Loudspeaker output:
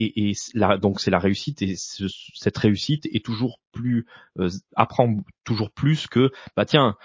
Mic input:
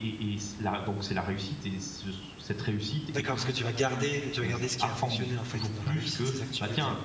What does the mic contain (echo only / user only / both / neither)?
both